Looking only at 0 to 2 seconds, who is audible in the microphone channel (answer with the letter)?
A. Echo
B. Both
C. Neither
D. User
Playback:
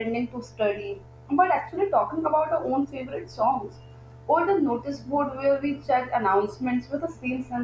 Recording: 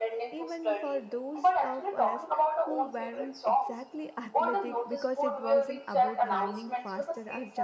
B